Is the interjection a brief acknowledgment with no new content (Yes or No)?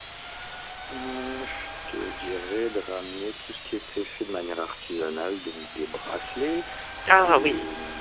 Yes